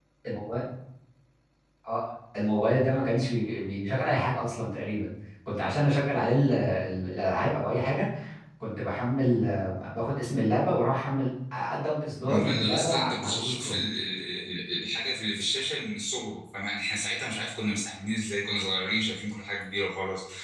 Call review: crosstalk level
present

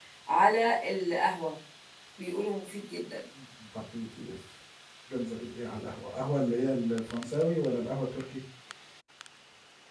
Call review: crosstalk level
none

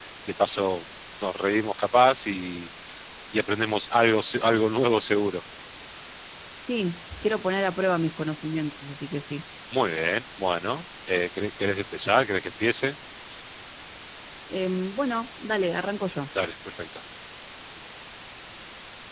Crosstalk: none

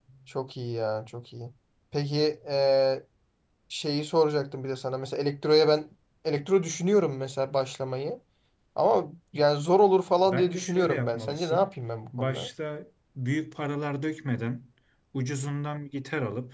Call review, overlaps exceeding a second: present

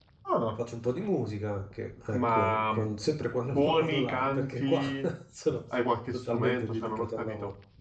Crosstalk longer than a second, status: present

